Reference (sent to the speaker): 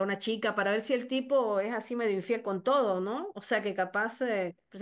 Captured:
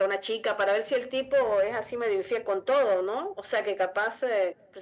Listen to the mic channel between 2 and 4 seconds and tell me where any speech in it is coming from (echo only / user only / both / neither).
echo only